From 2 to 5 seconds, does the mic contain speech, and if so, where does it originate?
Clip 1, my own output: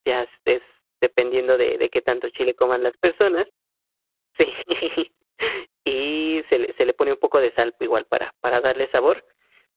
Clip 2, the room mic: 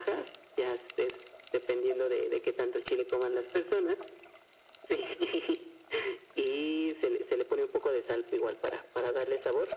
echo only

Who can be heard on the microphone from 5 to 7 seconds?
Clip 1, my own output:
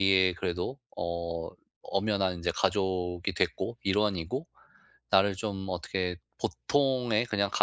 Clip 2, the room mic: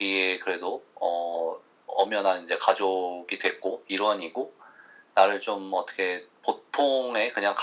echo only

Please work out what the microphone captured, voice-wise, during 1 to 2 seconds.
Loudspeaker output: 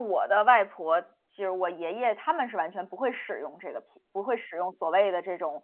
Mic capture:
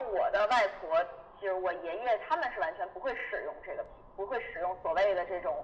echo only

